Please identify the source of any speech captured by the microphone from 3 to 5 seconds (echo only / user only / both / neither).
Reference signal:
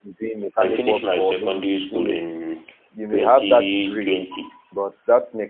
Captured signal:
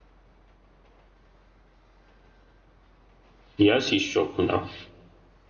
user only